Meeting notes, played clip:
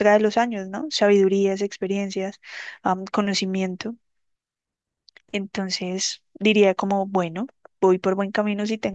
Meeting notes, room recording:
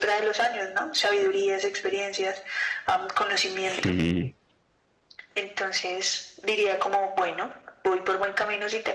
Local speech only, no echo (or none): Sí.